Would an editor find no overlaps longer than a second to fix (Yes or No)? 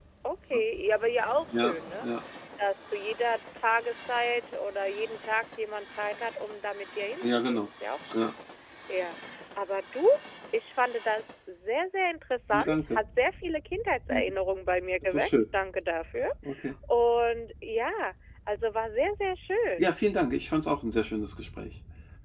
Yes